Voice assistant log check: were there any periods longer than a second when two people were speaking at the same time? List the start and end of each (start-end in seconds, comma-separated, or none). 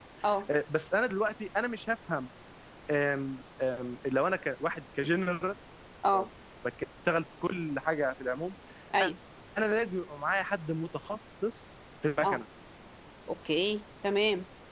none